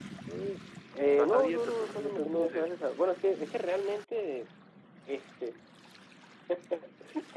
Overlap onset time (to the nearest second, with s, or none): 1 s